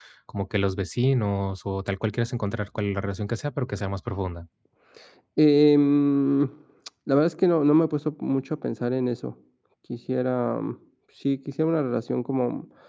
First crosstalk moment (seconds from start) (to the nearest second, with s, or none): none